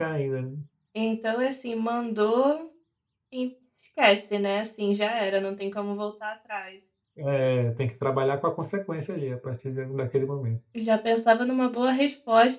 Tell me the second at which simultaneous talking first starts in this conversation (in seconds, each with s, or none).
none